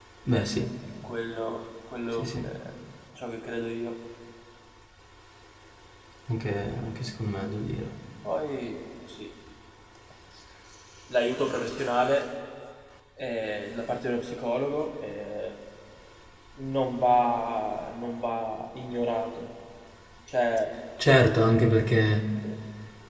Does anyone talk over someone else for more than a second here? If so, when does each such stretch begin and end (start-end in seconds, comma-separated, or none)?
none